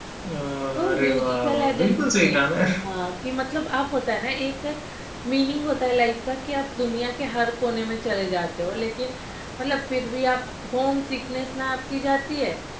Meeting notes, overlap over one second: present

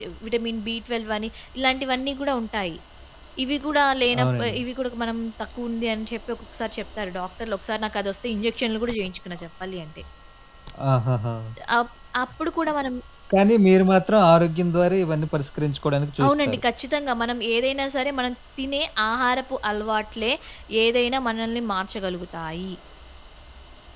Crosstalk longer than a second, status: none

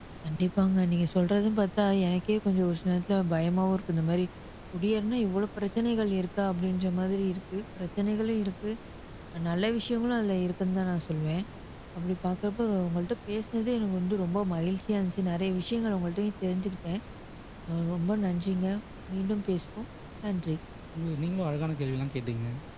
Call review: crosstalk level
none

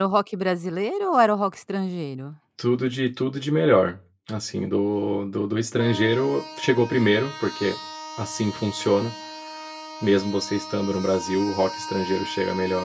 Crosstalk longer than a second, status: none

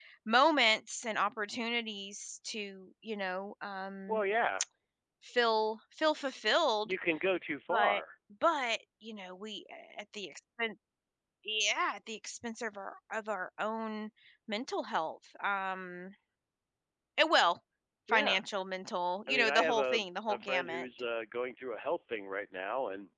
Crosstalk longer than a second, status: present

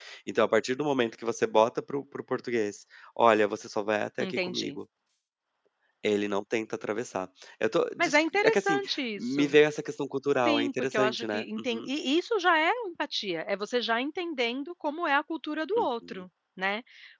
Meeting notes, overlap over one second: present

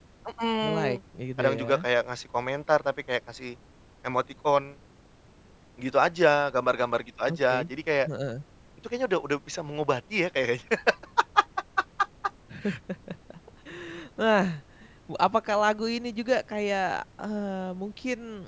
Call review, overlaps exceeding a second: none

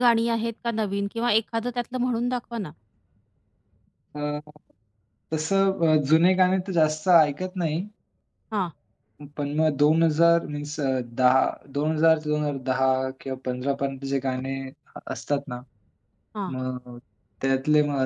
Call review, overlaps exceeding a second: none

